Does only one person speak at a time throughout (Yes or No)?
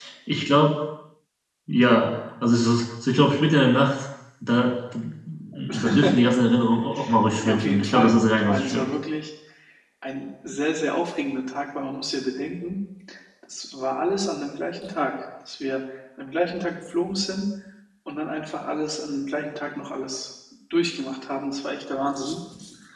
No